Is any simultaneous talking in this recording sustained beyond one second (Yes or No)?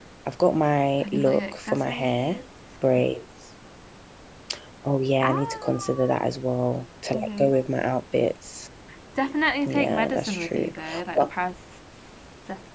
Yes